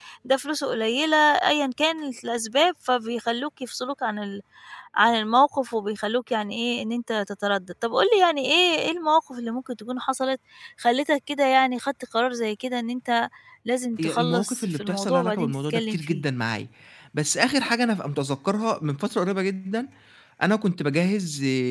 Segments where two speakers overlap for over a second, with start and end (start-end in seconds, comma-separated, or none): 14.0-16.2